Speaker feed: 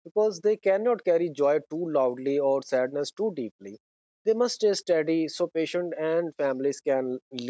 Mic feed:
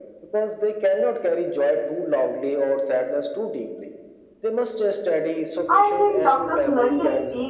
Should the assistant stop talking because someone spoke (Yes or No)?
Yes